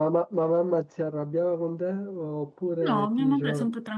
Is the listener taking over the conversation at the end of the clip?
Yes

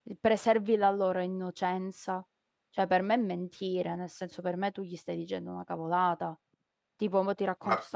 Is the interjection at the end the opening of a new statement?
No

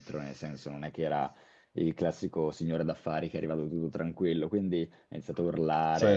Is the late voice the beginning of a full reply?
No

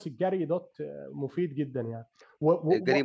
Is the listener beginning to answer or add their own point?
Yes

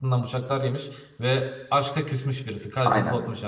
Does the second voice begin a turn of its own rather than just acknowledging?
Yes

